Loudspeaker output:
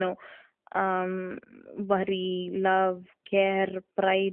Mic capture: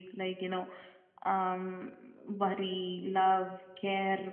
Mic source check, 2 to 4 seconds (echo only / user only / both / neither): echo only